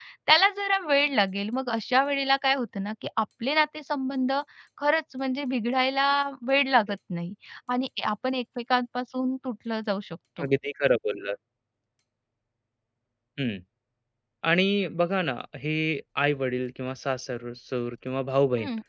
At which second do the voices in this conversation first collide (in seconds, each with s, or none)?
none